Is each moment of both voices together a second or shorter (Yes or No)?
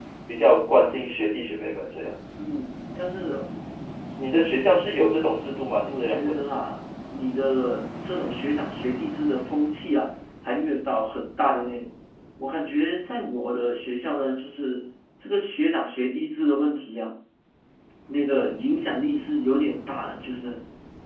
Yes